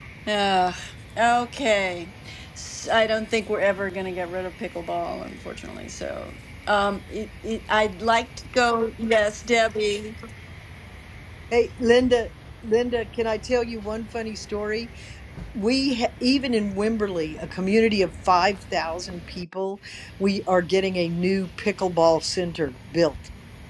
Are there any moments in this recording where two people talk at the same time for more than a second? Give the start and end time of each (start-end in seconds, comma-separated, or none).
none